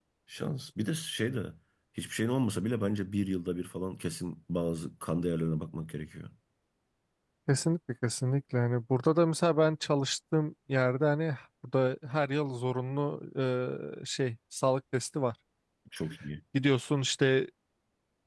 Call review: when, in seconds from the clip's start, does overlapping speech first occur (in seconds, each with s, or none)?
none